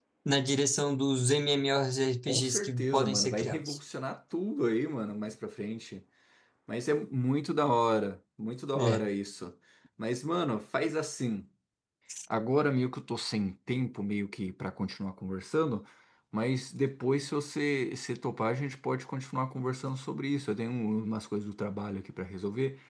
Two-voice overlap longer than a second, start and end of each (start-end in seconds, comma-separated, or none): 2.3-3.8